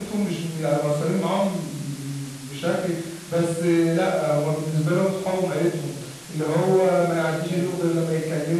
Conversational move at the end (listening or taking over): listening